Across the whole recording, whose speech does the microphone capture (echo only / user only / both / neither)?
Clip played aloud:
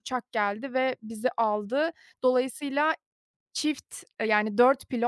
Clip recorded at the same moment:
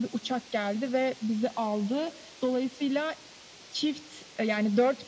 echo only